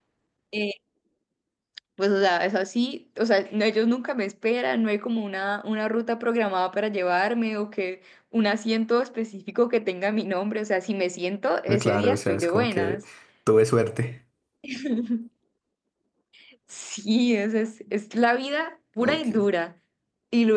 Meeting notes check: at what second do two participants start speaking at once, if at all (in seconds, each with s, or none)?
11.8 s